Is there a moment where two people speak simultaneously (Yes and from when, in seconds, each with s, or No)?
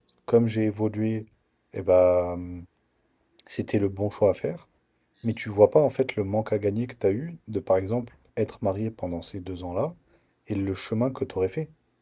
No